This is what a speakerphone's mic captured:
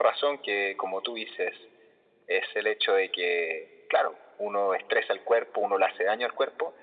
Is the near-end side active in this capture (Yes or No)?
No